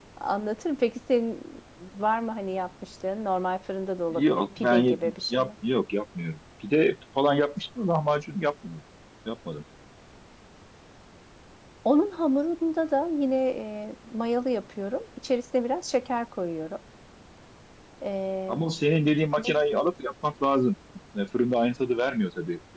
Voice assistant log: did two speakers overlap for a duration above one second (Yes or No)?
Yes